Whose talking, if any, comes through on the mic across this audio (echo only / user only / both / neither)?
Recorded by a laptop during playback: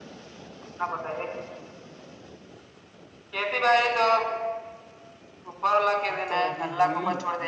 both